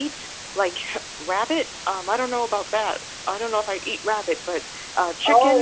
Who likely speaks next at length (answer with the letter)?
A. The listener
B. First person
A